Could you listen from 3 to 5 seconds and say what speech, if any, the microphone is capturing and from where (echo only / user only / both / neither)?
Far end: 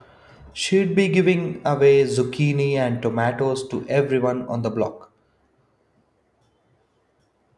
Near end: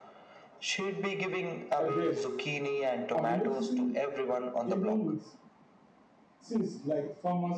both